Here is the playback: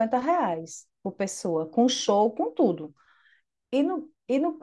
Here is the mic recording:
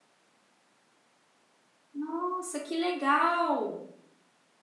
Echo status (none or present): none